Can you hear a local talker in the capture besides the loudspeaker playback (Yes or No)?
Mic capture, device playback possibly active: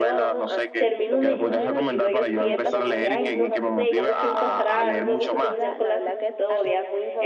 Yes